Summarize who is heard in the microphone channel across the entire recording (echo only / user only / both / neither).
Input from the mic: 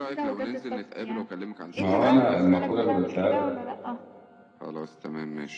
both